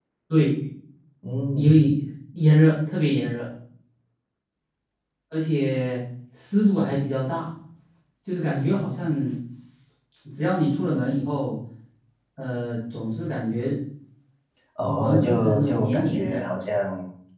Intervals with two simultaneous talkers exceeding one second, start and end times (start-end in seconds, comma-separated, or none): 15.0-16.4